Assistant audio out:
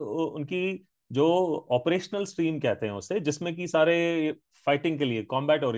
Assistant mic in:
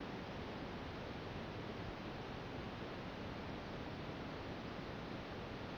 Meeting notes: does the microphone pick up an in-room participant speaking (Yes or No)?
No